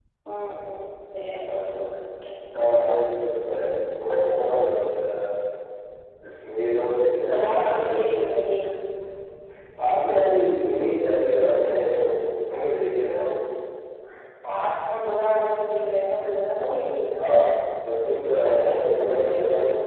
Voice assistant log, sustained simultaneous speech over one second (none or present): present